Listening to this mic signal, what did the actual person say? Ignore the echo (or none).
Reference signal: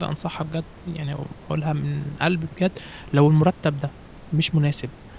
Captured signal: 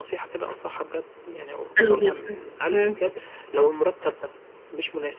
حلو جدًا، إمم.